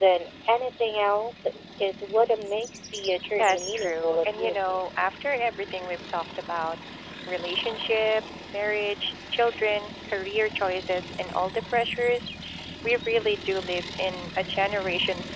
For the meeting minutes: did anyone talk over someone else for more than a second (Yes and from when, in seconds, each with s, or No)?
Yes, from 3.4 s